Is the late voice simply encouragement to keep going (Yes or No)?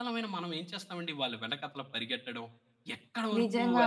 Yes